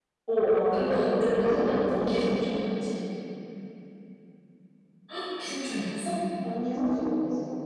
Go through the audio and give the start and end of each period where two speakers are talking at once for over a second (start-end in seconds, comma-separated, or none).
0.7-2.3